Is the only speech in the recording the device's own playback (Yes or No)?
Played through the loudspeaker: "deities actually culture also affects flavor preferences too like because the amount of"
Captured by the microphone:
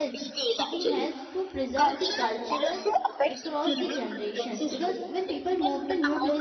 No